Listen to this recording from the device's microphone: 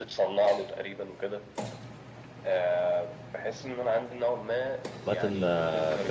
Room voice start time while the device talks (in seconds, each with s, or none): 5.1 s